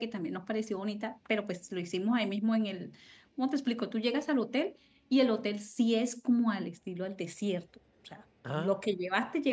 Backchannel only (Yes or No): Yes